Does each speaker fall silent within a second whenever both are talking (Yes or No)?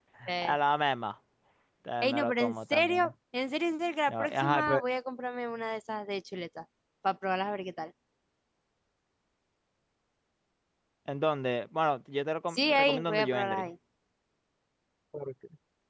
No